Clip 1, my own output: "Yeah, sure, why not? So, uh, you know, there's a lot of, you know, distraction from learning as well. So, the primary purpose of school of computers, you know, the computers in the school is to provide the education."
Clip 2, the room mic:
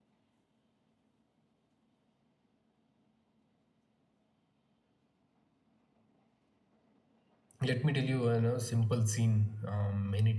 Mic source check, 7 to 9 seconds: user only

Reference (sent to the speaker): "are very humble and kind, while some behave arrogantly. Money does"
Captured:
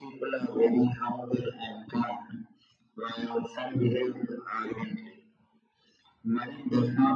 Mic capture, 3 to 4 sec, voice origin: echo only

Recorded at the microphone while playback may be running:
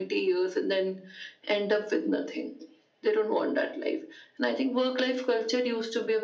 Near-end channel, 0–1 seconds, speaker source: echo only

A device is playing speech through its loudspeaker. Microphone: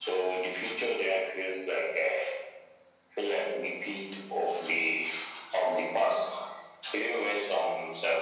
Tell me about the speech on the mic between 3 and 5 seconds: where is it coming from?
echo only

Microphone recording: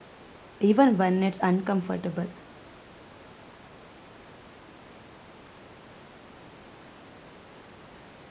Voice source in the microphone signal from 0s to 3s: user only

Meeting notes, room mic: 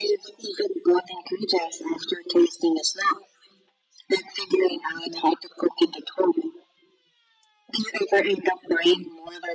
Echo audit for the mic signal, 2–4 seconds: echo only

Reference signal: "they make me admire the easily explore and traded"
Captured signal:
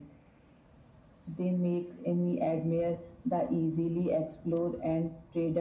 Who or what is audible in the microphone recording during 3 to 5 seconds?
echo only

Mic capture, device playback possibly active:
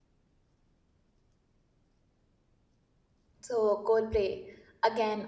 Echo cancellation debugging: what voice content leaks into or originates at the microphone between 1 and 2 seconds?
neither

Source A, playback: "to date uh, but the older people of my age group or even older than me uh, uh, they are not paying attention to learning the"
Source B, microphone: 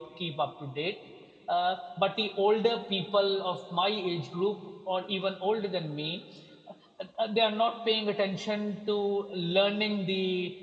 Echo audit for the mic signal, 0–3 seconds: echo only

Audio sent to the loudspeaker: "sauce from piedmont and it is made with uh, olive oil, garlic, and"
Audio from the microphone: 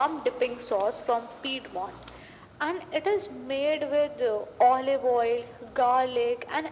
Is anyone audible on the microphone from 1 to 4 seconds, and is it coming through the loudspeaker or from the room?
echo only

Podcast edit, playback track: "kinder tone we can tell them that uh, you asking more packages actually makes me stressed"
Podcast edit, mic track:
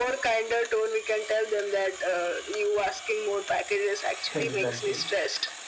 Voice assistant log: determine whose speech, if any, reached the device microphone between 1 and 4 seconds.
echo only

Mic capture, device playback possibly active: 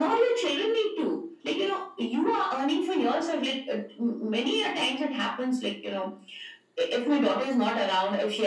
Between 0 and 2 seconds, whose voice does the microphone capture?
echo only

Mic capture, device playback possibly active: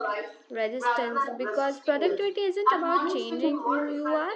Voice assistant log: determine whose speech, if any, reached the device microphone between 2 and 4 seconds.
both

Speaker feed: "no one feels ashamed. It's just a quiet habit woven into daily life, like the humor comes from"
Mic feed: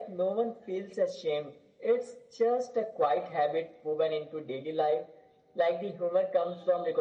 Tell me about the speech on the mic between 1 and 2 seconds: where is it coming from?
echo only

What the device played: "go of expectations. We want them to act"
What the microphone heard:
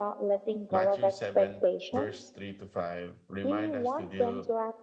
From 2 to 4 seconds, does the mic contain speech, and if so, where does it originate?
both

